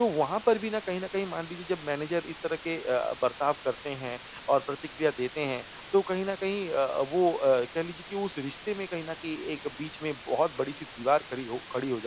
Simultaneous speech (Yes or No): No